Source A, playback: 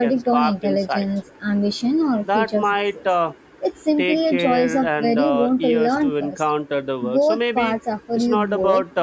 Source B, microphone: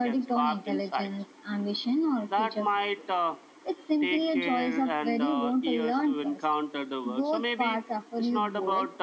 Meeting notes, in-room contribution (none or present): none